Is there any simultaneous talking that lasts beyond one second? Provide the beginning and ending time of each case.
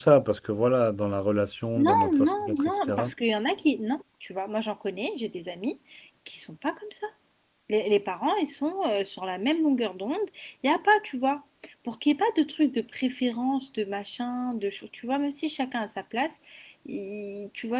1.8-3.1

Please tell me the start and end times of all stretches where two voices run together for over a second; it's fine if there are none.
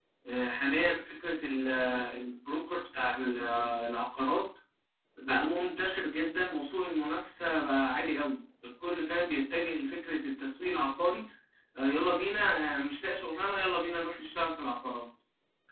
none

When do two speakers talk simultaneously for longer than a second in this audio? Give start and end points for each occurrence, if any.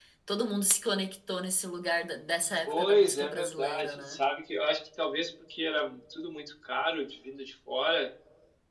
2.7-4.2

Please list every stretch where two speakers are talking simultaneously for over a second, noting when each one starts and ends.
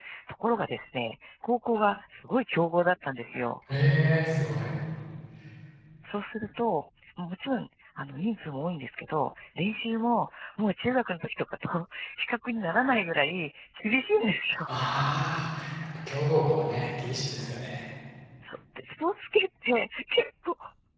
none

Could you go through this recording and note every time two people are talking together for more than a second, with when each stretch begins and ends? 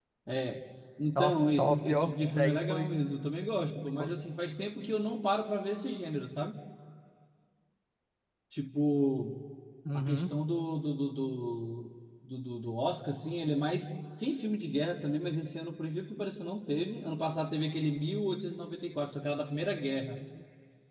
1.1-2.9

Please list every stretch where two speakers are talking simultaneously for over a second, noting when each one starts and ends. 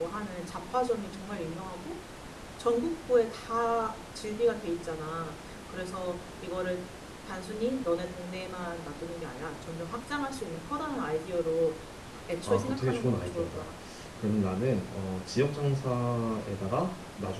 12.5-13.7

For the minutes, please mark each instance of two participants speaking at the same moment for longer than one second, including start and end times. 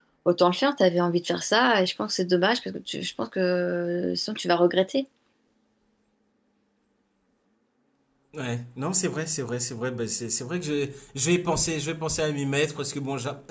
none

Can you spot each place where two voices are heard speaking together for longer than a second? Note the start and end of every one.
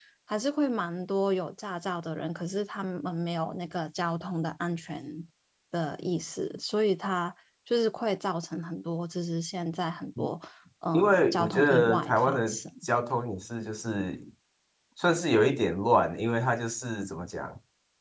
10.9-12.6

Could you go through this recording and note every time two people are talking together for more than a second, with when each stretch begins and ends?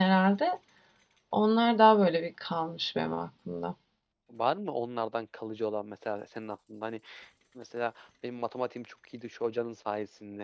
none

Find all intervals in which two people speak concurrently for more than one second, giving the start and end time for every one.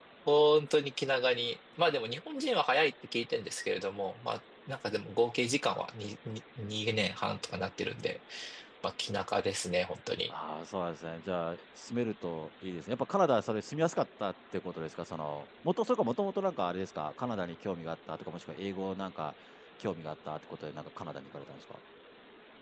none

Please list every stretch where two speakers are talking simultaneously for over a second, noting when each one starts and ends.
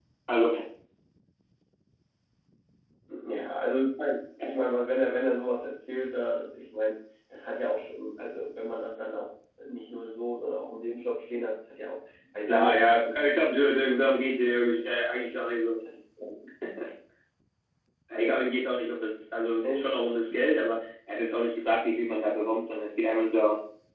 12.5-13.7

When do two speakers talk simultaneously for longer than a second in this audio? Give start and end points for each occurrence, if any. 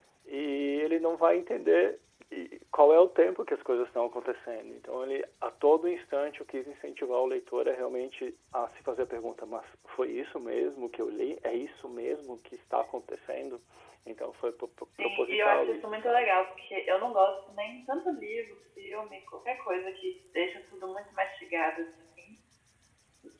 15.0-16.3

